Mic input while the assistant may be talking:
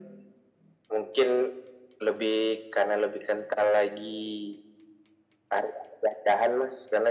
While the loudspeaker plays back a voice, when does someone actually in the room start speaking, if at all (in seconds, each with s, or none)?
none